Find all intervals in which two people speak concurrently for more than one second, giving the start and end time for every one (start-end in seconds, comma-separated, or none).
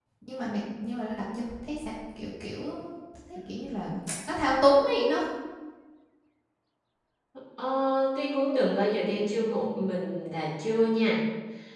none